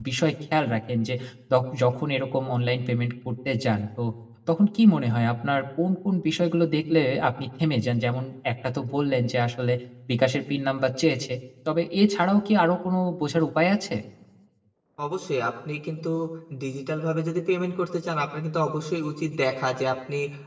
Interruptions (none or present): none